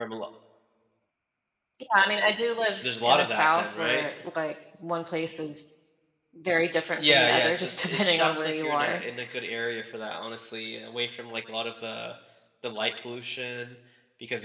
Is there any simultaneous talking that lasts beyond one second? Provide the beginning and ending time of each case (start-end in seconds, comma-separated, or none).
2.7-4.1, 7.0-9.0